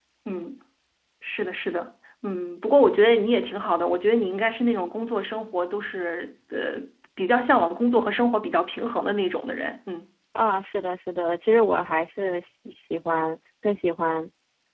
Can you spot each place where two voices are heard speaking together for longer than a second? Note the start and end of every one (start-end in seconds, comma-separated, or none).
none